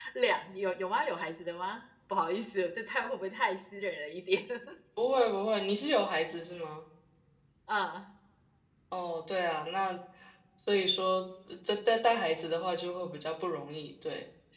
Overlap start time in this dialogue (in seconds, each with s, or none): none